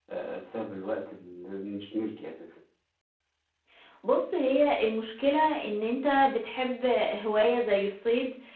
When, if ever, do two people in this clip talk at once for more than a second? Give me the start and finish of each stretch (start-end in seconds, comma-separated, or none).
none